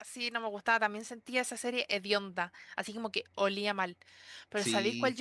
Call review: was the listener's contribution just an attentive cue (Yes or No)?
Yes